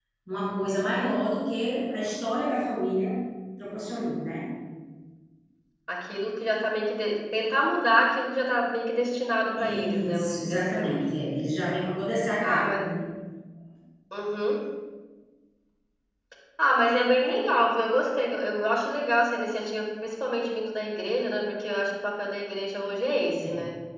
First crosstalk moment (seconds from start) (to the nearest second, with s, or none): 10 s